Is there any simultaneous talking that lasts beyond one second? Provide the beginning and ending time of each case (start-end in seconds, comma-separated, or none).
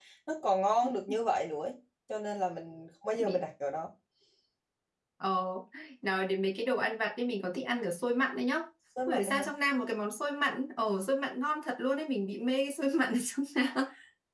none